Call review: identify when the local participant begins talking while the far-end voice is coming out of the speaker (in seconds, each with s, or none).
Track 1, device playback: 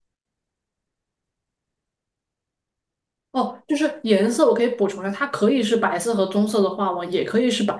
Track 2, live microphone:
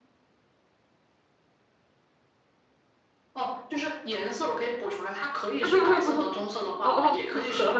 5.6 s